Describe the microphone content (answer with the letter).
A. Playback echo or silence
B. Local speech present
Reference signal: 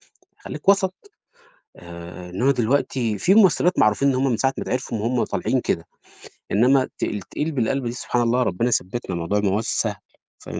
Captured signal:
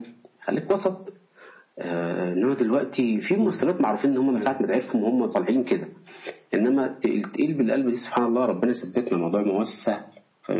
B